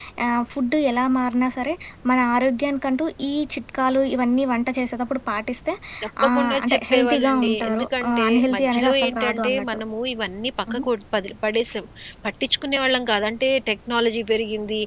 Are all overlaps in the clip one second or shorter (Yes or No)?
No